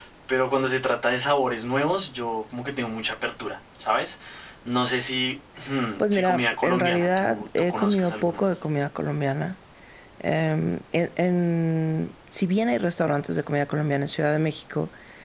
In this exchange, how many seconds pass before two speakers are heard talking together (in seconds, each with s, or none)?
6.0 s